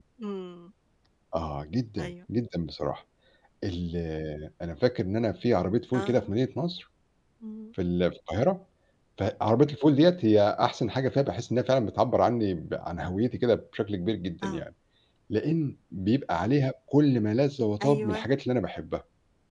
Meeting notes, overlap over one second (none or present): none